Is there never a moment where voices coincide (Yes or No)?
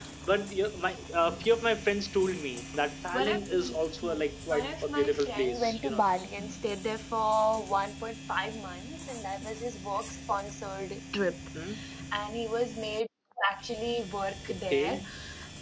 No